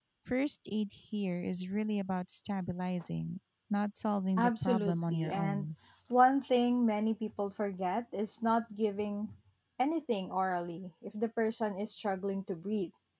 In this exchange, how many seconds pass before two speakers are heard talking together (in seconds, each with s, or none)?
4.4 s